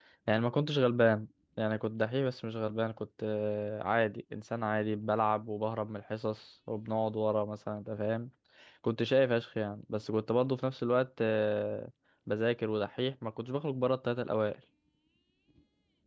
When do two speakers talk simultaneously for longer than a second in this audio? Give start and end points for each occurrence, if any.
none

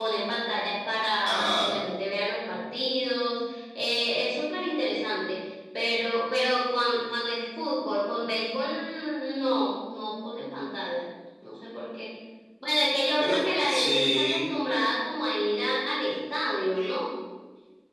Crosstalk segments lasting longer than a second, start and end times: 13.2-14.5

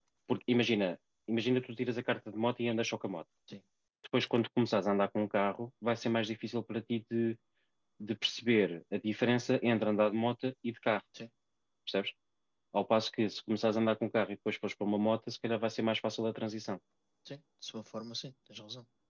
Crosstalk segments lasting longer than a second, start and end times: none

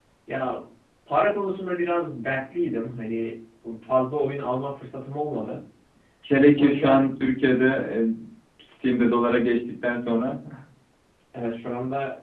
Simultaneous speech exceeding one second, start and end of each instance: none

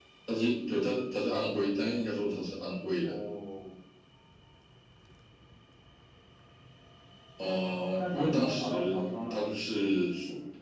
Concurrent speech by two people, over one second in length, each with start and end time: 8.0-9.6

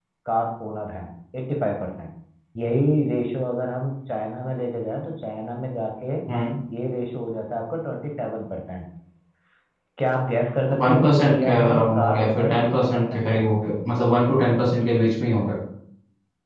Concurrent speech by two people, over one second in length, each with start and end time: 10.8-13.4

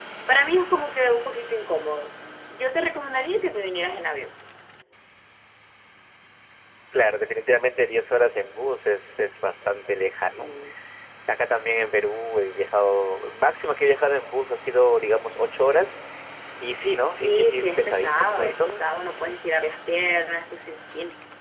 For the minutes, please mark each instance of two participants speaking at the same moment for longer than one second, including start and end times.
17.1-18.8

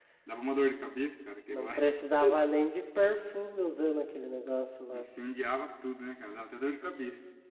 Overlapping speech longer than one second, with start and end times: none

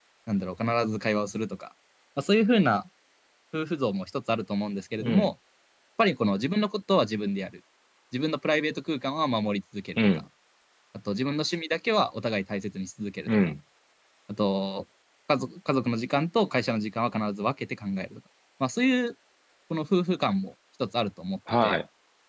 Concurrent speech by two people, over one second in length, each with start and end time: none

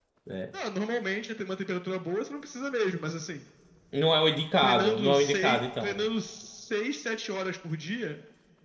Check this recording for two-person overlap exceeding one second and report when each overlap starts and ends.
4.6-6.1

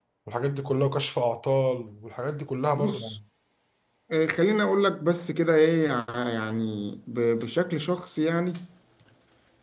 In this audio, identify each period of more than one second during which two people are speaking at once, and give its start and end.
none

